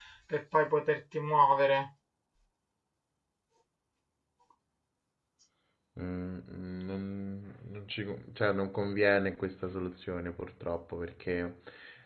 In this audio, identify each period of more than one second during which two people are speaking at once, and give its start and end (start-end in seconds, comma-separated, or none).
none